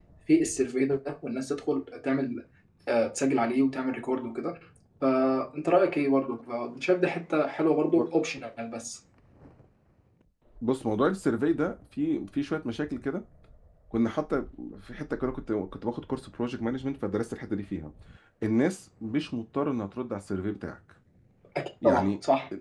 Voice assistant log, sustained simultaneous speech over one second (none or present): none